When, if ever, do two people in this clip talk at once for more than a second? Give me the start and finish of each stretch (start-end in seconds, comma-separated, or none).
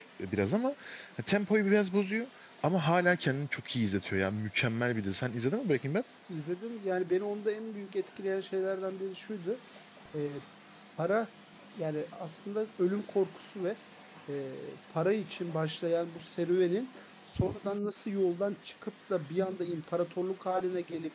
none